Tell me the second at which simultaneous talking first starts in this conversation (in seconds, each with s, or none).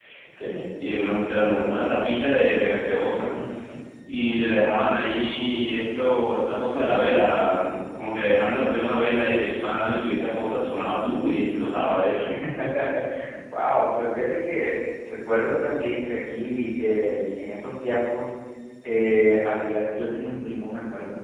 none